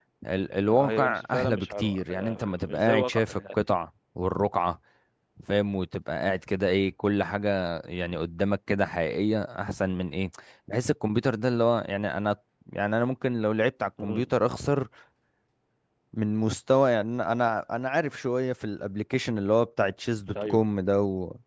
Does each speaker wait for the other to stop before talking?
No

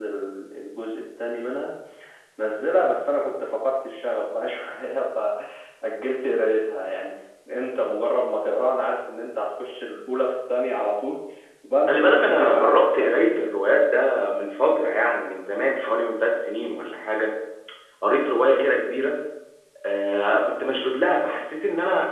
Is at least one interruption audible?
Yes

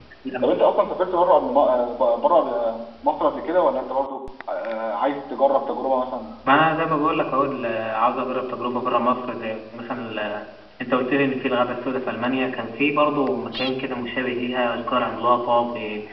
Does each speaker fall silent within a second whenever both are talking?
Yes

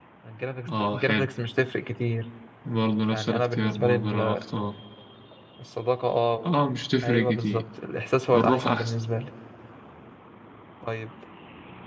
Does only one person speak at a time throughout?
No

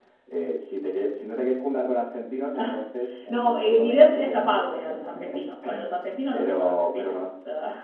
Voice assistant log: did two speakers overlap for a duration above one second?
Yes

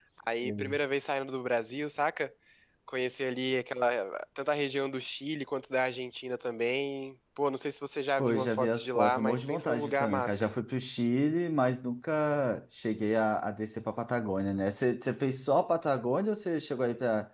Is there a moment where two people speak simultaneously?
Yes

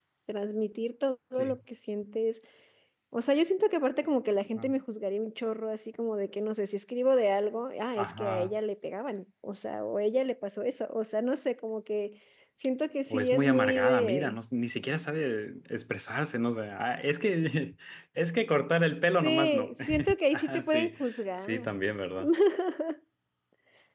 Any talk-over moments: Yes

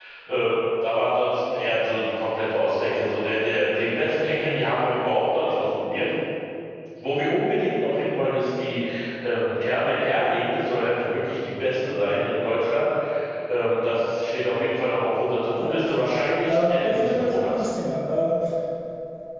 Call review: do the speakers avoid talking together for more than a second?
No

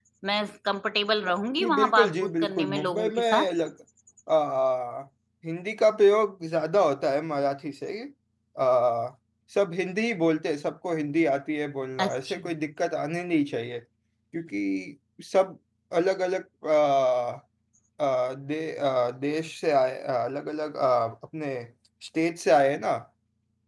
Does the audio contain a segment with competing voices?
Yes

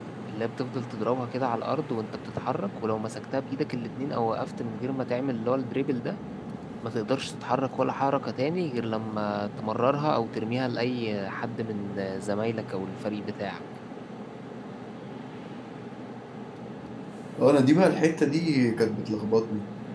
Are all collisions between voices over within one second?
Yes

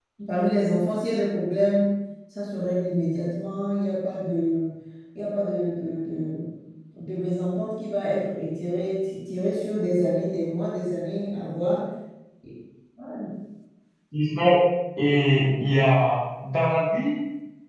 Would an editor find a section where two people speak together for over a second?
No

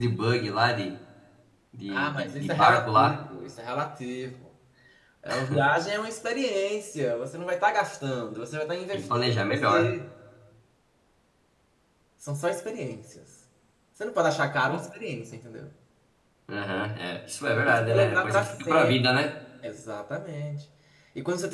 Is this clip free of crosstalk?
No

